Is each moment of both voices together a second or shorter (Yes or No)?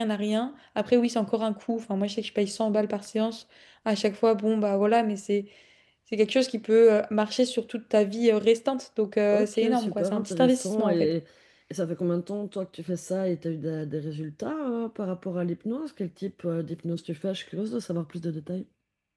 No